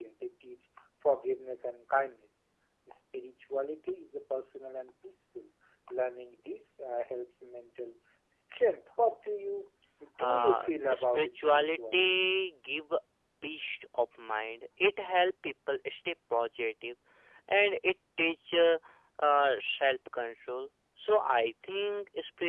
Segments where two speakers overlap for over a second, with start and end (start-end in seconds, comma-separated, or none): 10.2-12.1